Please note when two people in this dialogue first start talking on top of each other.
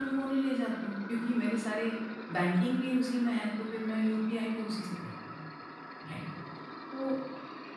none

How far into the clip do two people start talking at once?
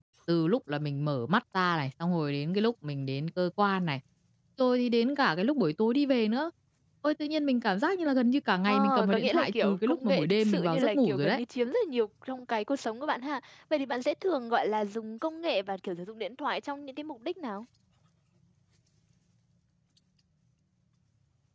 8.7 s

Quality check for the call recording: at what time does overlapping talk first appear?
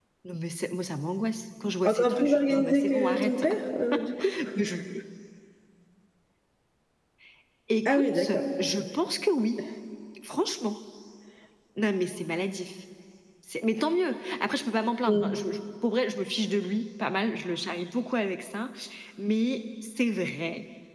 1.9 s

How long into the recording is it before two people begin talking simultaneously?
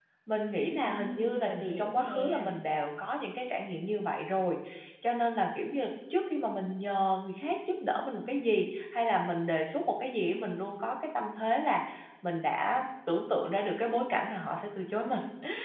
0.8 s

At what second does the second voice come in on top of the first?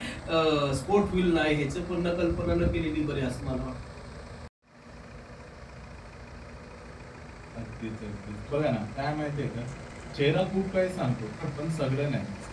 none

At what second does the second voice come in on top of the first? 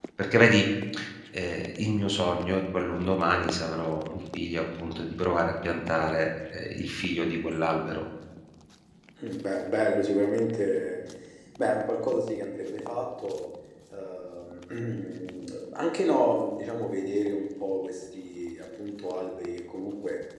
none

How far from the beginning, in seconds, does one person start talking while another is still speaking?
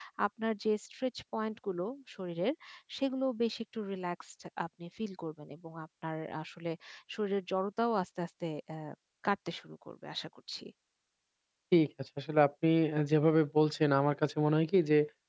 none

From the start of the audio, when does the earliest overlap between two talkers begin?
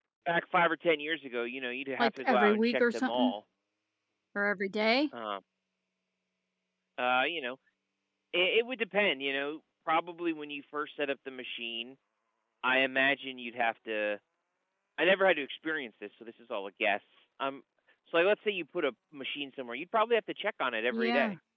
2.0 s

